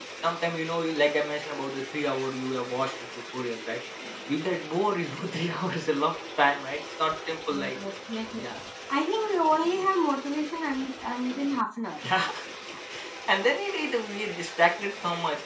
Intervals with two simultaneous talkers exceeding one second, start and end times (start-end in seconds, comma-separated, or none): none